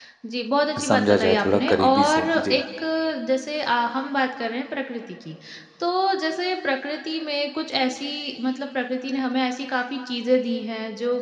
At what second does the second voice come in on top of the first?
0.8 s

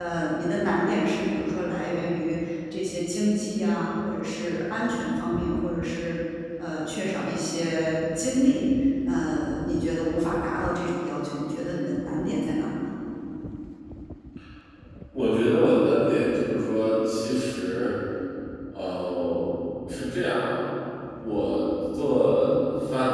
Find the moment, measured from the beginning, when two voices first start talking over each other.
none

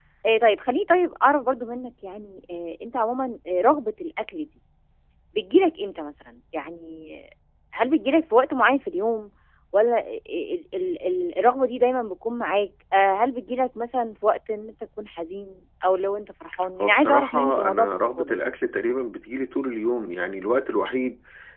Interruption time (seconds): 16.8 s

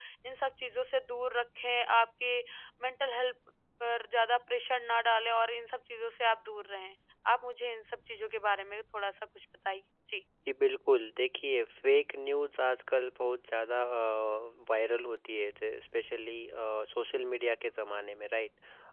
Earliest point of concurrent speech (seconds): none

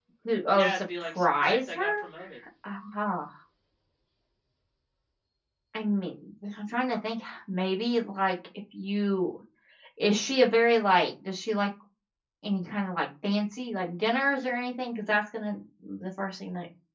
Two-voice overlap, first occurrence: 0.6 s

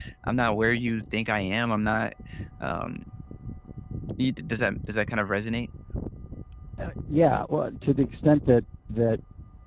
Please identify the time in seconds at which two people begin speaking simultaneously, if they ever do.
none

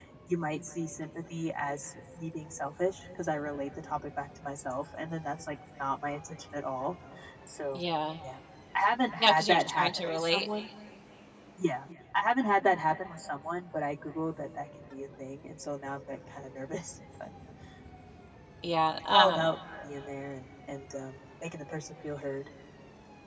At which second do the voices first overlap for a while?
9.2 s

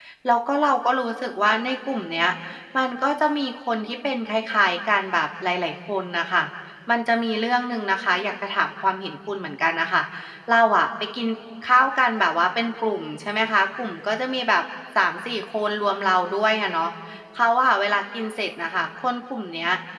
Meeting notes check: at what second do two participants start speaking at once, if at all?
none

